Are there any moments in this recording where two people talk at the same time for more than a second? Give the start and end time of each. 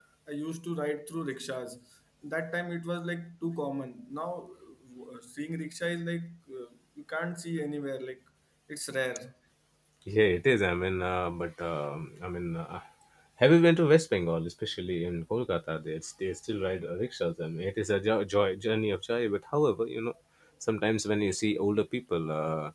none

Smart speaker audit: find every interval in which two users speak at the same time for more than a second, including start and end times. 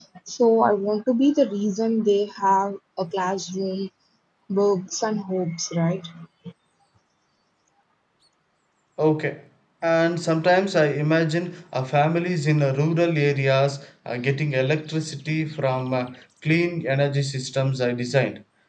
none

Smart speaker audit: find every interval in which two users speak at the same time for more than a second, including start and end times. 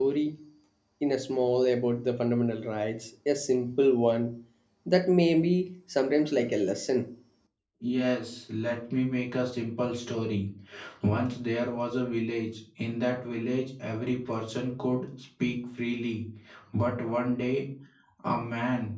none

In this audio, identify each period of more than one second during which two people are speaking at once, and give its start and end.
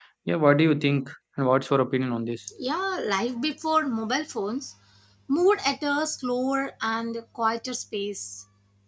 none

